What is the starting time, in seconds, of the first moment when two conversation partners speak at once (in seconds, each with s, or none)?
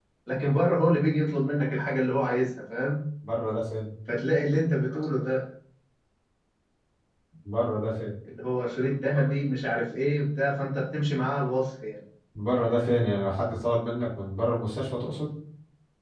none